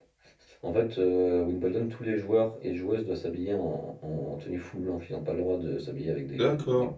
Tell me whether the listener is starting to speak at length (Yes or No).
Yes